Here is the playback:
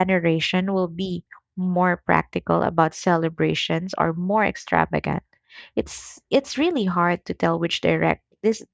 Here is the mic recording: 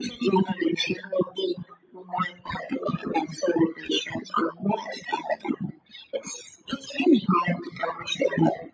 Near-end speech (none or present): none